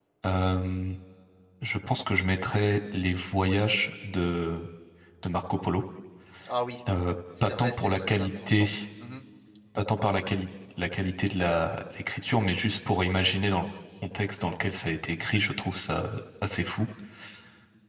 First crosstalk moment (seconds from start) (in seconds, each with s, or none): 7.4 s